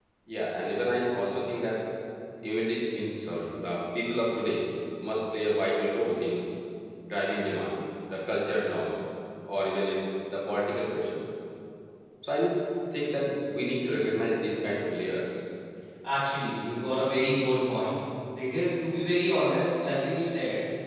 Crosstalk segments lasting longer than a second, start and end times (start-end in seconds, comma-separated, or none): none